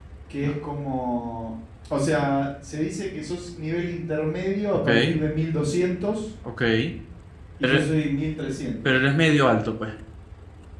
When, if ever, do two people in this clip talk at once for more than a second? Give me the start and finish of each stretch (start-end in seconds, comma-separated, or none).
none